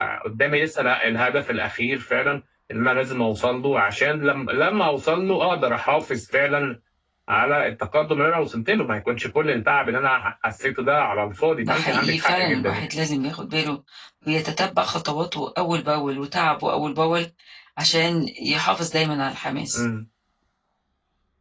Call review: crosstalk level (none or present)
present